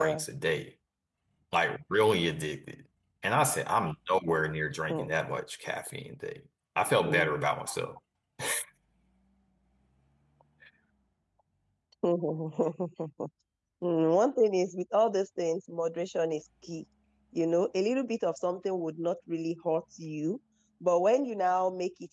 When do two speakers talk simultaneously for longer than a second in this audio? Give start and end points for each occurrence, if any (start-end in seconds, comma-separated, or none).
none